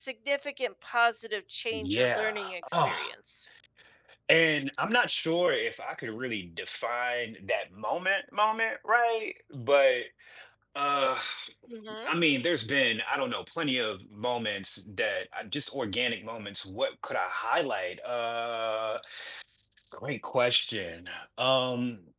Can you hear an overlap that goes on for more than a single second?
Yes, from 1.7 s

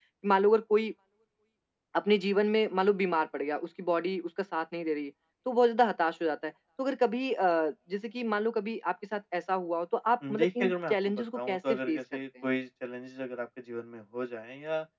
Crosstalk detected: Yes, from 10.2 s

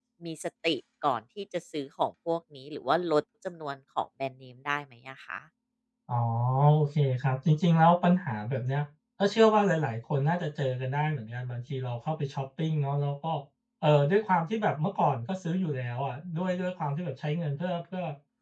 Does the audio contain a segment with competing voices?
No

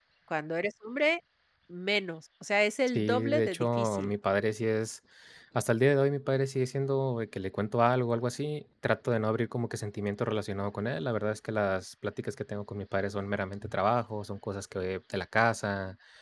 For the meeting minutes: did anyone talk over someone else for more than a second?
Yes, from 2.9 s

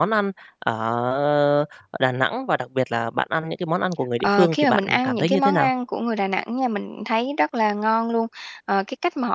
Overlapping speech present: Yes, from 4.2 s

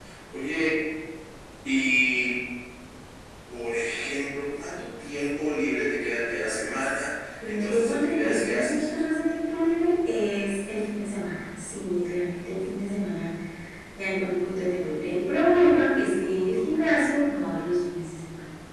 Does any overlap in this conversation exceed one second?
Yes, from 7.4 s

